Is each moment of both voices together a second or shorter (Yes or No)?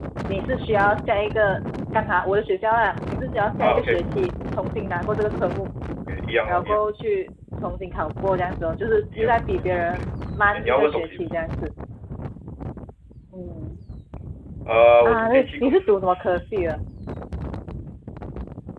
No